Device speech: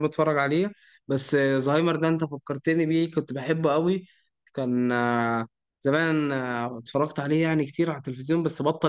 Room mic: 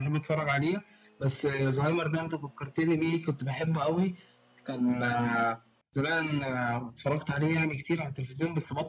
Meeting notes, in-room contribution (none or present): none